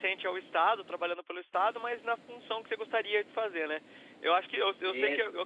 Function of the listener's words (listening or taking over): listening